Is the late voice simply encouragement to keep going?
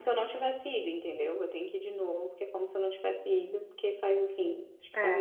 No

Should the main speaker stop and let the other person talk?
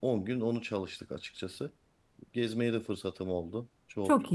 No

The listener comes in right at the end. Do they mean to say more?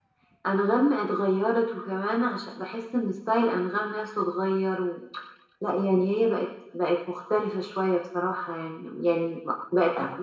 No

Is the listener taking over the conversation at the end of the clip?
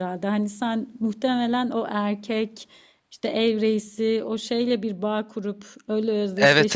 Yes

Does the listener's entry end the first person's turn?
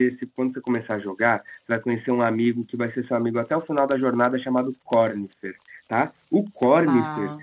No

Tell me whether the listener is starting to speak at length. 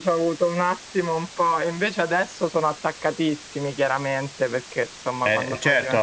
Yes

